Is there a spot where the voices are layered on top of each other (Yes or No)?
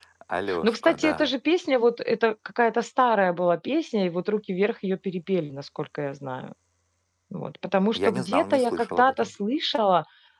Yes